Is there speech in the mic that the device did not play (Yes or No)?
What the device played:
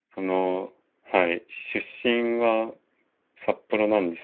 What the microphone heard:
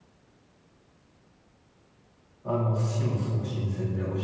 Yes